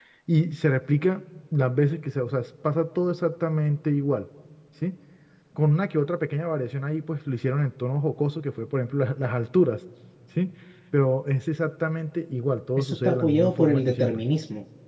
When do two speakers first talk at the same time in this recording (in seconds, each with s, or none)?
12.8 s